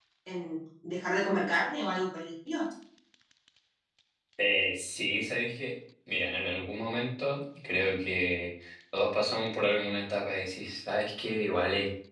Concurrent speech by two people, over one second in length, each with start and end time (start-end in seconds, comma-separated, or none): none